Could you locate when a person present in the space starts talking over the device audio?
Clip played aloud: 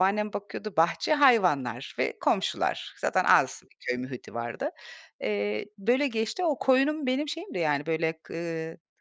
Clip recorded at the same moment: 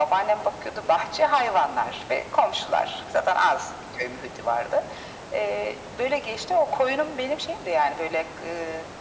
none

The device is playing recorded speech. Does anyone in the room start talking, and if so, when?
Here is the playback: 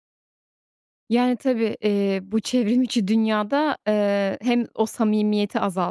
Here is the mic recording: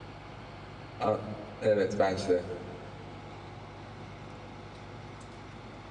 1.0 s

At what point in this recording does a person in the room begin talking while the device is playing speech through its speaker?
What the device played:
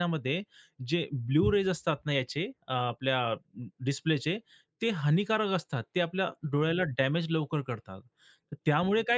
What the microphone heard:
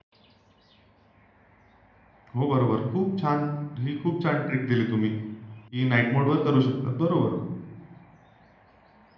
2.4 s

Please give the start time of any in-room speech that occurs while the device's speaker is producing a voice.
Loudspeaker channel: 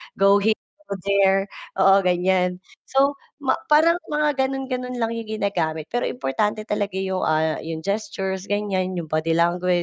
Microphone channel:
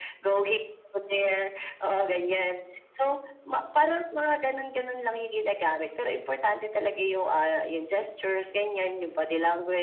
none

